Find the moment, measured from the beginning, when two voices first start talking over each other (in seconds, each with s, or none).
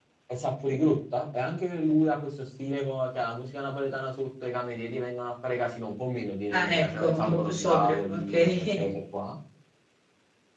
6.5 s